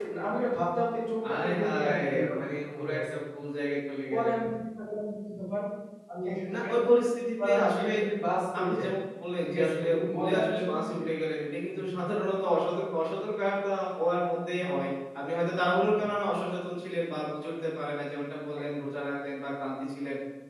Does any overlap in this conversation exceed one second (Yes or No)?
Yes